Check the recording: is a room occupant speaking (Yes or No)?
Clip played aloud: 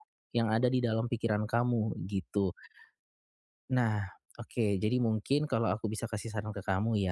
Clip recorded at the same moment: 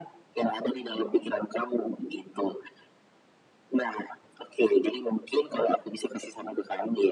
Yes